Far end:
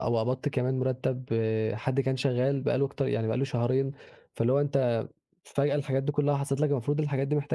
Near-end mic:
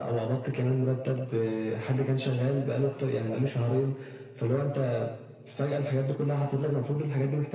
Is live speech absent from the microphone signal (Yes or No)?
Yes